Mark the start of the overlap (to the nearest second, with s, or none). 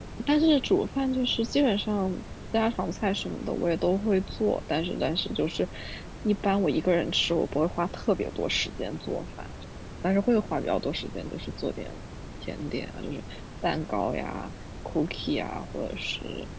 none